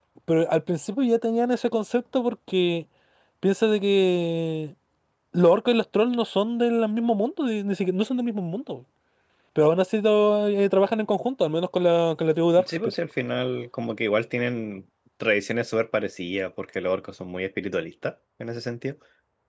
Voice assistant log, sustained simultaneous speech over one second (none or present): none